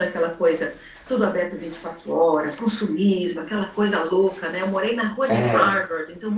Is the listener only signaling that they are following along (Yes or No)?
Yes